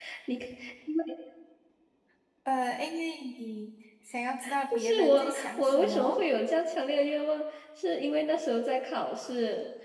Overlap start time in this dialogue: 4.7 s

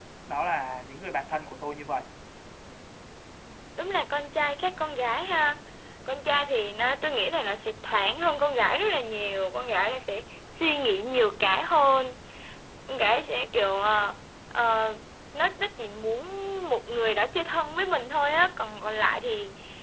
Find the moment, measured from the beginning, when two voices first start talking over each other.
none

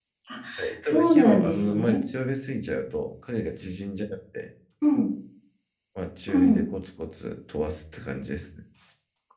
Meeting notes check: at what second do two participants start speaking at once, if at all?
0.8 s

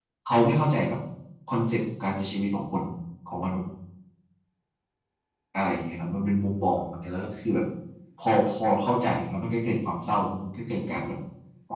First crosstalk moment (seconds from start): none

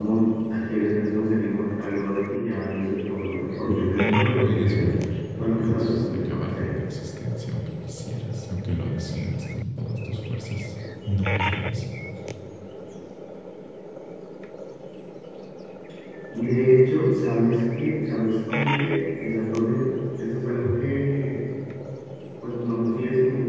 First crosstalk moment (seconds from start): 3.7 s

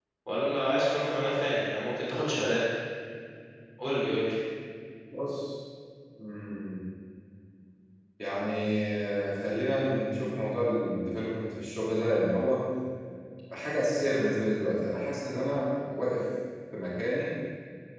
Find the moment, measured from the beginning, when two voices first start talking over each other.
none

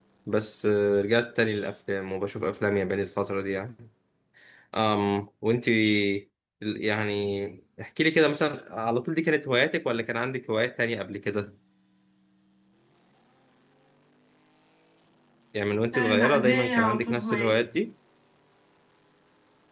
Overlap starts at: 15.9 s

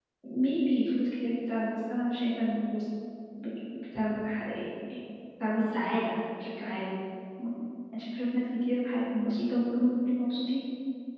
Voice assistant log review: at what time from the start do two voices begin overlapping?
none

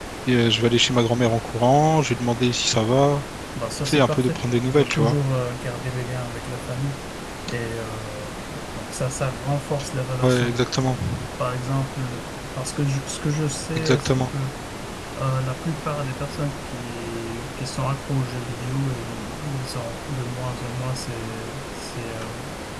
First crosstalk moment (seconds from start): 3.9 s

